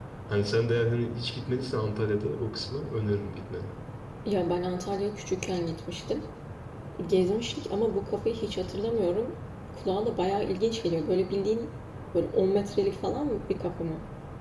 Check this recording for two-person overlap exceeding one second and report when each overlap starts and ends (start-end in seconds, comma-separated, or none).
none